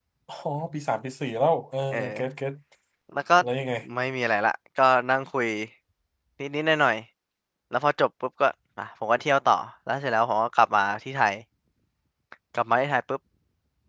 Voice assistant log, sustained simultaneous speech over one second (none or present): none